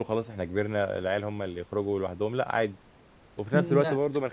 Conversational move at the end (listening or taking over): listening